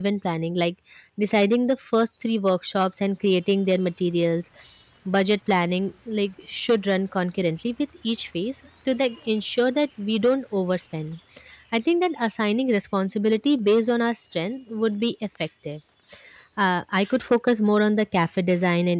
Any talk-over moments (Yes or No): No